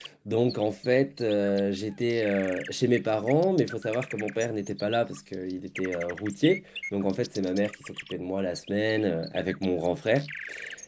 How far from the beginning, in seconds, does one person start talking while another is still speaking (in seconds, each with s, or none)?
none